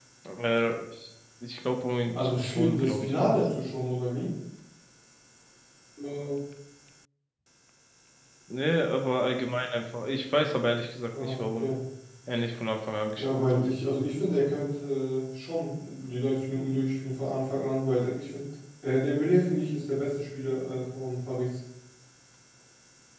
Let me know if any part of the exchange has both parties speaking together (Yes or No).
Yes